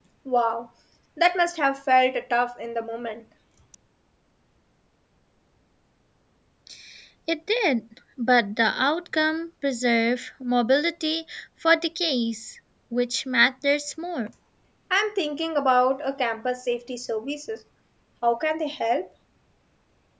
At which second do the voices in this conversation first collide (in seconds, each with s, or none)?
none